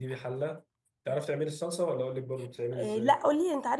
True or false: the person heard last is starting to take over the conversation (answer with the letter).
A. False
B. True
B